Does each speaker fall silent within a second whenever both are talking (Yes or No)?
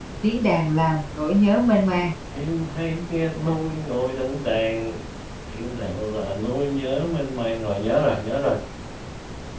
Yes